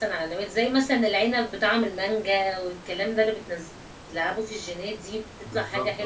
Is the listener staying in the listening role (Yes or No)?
Yes